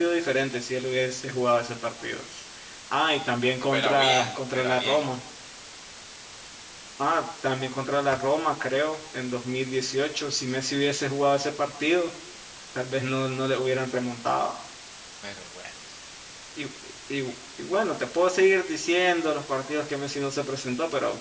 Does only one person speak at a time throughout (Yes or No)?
No